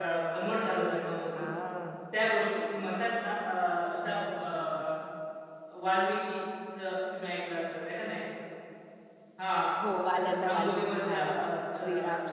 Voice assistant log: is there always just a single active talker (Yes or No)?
No